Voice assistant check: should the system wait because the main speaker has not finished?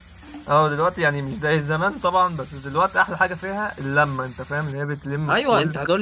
No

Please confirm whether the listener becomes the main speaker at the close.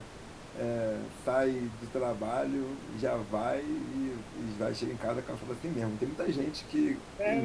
No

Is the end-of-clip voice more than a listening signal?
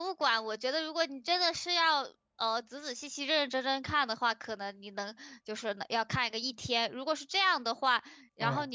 No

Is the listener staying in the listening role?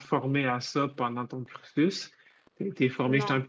Yes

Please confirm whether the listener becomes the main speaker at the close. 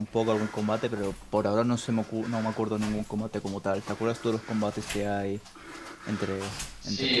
Yes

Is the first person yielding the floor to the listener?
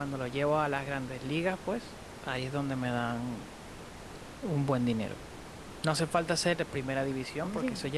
No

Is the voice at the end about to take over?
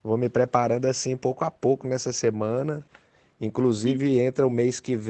No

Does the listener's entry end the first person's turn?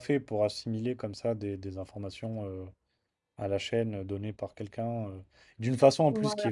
No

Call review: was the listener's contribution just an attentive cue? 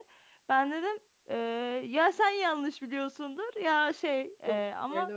No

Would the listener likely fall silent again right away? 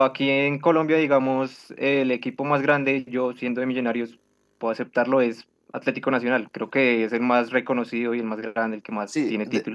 No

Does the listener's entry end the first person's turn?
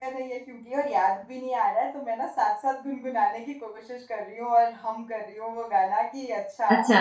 No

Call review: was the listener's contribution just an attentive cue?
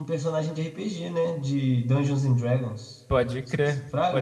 No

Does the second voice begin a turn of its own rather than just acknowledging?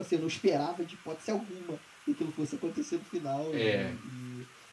No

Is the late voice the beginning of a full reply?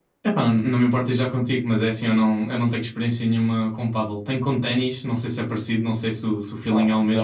Yes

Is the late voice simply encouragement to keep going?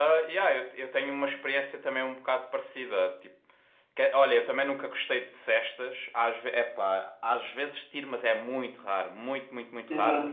No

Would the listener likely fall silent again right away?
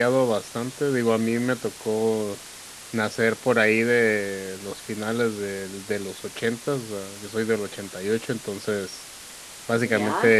Yes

